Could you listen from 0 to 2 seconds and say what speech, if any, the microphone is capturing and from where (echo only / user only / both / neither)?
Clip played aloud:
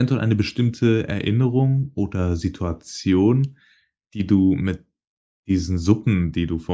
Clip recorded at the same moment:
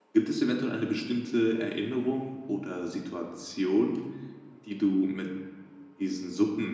echo only